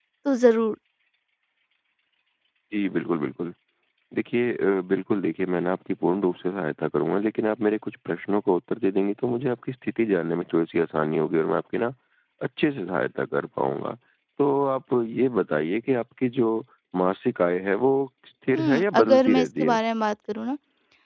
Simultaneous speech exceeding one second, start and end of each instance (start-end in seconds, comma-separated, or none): 18.6-19.8